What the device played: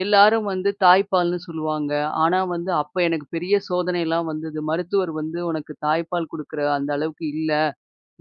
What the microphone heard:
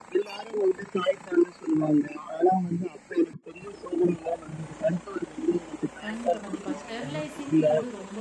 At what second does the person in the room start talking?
6.0 s

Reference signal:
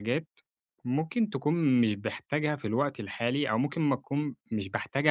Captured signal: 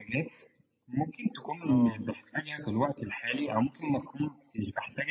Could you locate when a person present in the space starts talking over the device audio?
1.7 s

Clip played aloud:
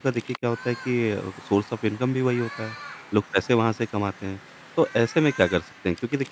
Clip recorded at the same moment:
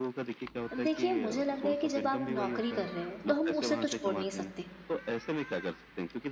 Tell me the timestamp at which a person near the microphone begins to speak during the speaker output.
0.8 s

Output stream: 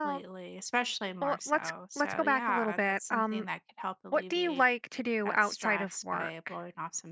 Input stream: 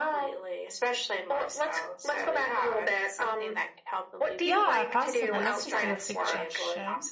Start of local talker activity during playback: 4.4 s

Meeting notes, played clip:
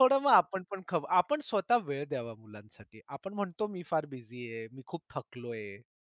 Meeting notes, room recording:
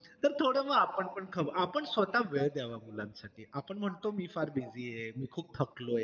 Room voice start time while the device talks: none

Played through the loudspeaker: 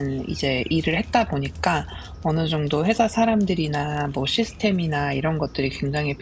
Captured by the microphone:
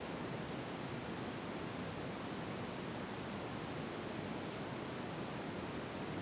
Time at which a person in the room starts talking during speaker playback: none

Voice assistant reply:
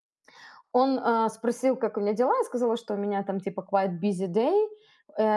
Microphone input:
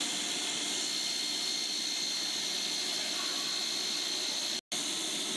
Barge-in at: none

